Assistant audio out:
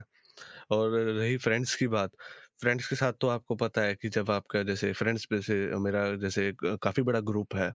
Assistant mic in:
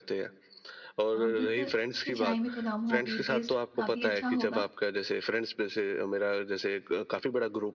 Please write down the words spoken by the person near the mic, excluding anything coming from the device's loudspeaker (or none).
अ, बिल्कुल उसकी चाय में तो दम होगी, टेस्ट काफ़ी अच्छा होगा।